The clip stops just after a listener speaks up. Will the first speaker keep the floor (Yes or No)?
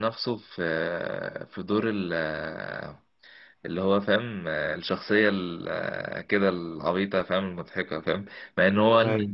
Yes